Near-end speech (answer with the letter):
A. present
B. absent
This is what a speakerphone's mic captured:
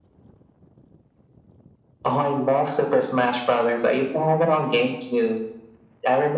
B